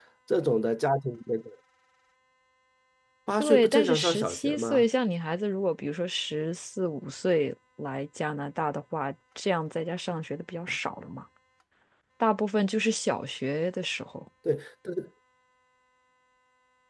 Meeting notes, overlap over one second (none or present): present